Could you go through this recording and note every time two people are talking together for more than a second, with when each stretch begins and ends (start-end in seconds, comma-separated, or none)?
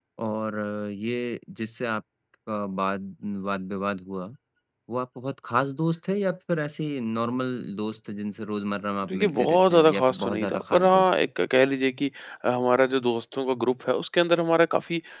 9.1-11.1